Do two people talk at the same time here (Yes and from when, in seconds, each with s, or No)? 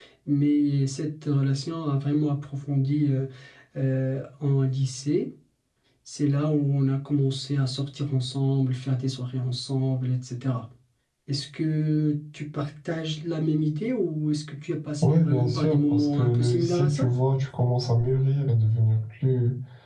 Yes, from 15.0 s